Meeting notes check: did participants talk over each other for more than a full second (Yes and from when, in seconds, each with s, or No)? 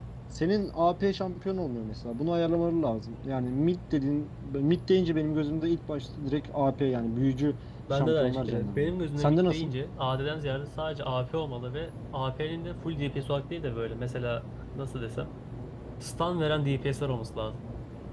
Yes, from 7.9 s